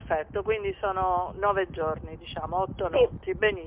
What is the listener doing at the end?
listening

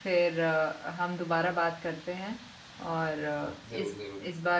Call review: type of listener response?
listening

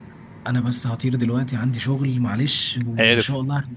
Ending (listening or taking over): listening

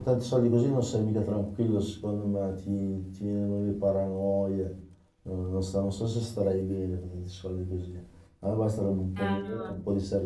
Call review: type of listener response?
taking over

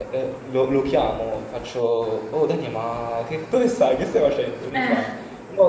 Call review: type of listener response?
listening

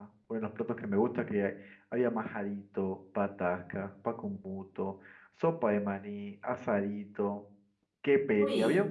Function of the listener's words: listening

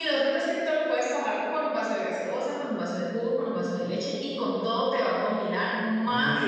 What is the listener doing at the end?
taking over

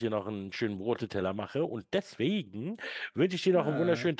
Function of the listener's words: listening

